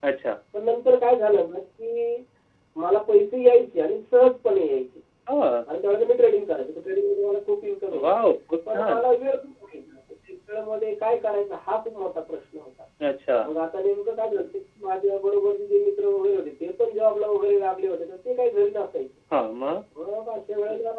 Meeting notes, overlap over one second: none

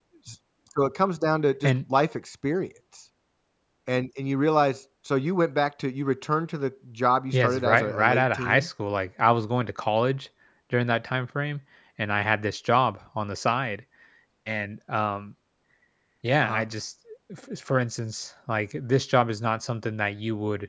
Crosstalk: present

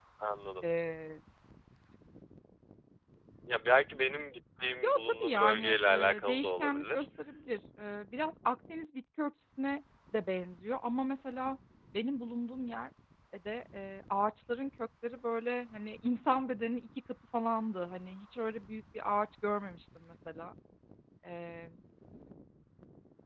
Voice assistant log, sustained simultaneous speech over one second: present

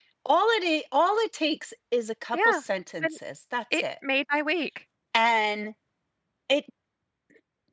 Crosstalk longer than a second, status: none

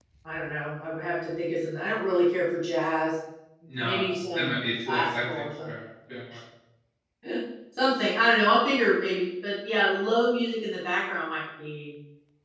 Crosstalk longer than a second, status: present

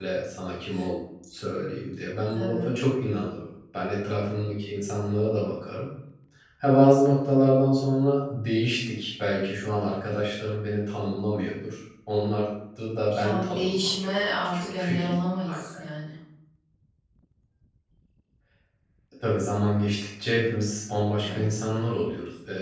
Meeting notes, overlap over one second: present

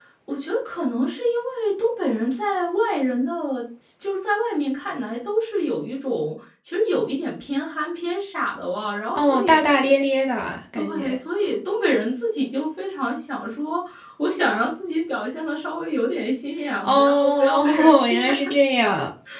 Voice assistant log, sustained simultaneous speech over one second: present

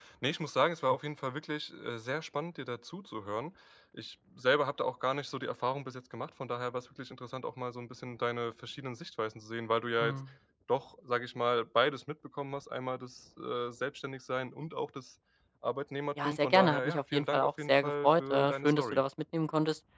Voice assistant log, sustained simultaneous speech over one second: present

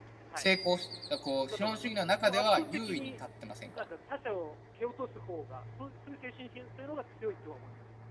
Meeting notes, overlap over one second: present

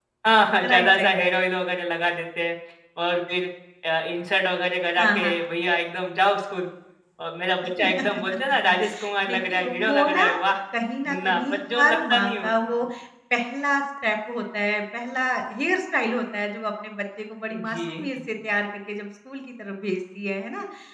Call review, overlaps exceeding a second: present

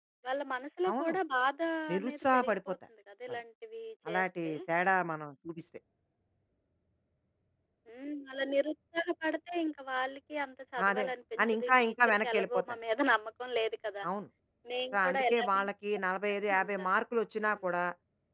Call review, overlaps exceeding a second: present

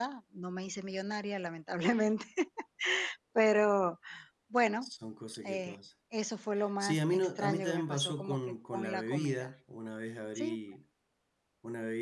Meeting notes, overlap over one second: present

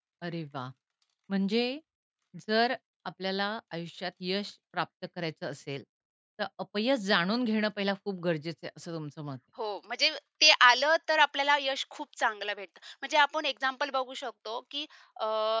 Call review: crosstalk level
none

